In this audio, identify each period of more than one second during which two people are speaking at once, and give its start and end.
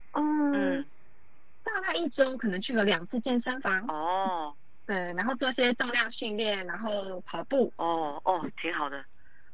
none

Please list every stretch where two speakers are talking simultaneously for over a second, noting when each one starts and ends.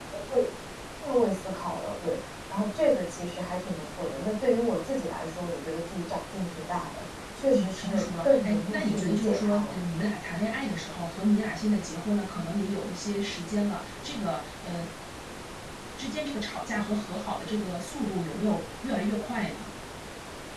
7.5-9.7

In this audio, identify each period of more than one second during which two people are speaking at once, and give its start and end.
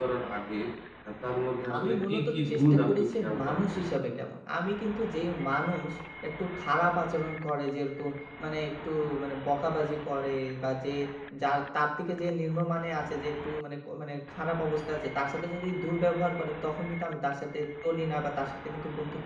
1.8-4.0

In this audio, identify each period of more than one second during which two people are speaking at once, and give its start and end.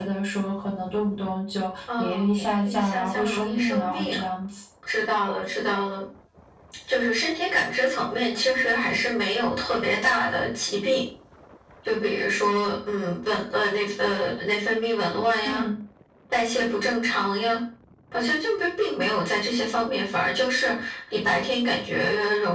2.0-4.2

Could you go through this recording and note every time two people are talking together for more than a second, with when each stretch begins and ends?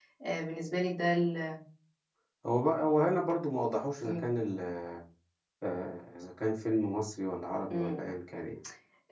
none

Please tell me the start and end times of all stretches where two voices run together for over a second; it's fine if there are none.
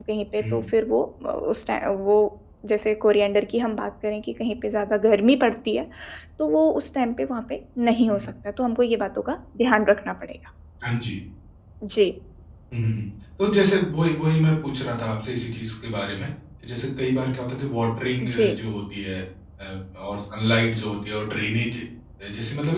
none

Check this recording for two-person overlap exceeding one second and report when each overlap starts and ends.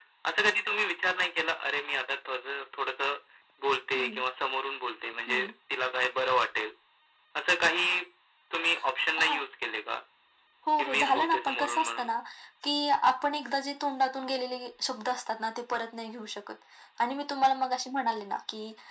10.8-12.1

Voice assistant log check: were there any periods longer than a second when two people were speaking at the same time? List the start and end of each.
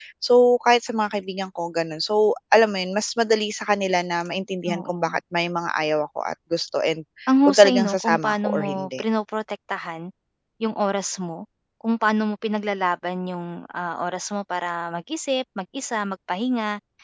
7.5-9.0

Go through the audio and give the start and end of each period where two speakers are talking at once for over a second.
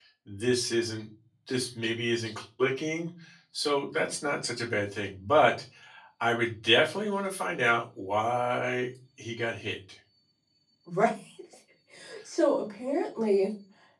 none

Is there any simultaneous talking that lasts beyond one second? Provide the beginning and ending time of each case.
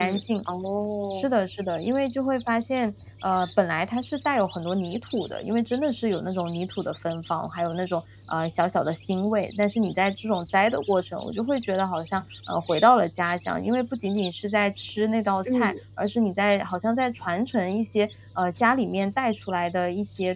none

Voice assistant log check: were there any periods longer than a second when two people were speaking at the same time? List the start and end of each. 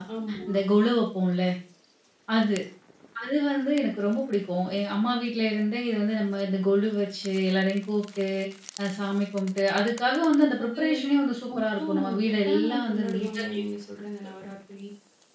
11.6-13.6

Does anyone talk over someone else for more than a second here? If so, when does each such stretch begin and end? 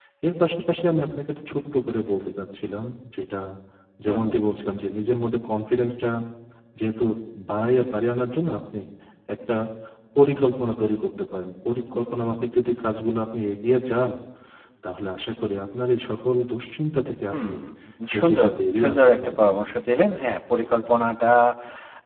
18.2-19.5

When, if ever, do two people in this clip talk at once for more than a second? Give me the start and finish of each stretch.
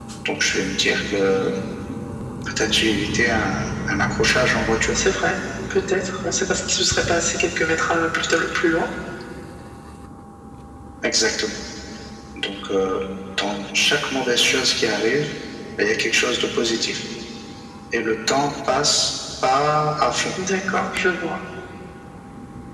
none

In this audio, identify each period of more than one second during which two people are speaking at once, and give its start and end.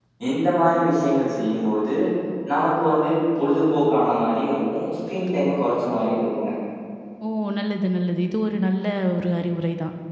none

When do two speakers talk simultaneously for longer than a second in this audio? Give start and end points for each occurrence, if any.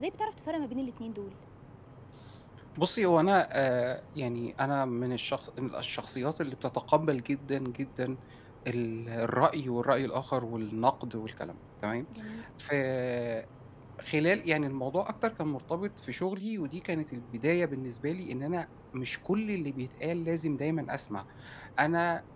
none

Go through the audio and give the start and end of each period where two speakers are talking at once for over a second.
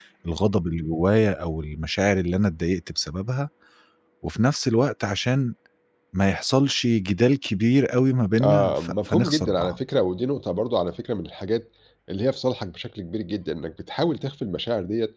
8.4-9.8

